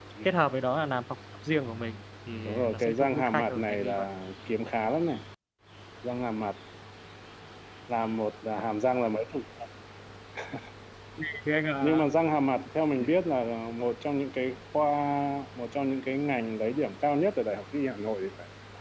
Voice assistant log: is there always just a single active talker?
No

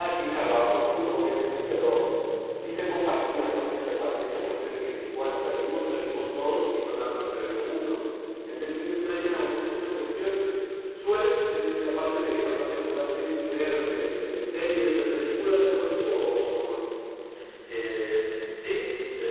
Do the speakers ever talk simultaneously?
No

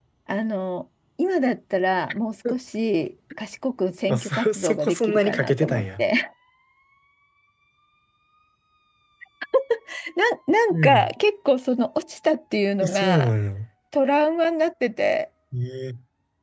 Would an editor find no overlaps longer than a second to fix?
No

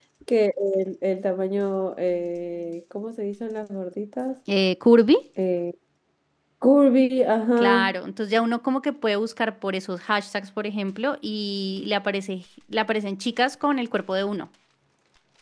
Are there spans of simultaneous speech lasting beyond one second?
No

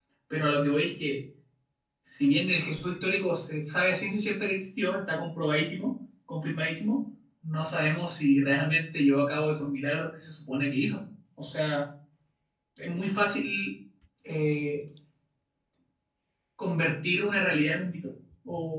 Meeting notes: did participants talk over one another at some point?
No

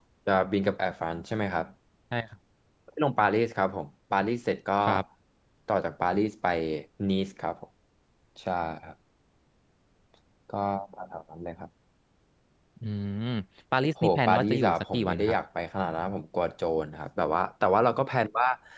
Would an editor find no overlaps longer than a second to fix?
No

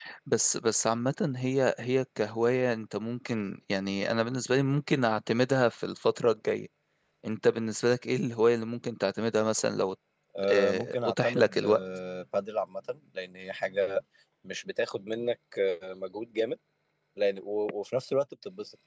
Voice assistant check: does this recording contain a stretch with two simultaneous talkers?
Yes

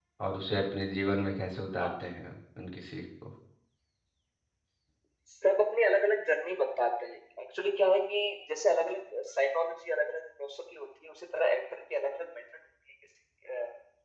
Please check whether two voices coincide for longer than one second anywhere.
No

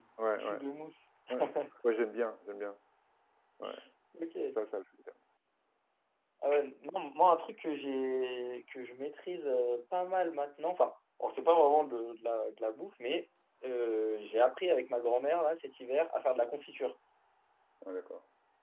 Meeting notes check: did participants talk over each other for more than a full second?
No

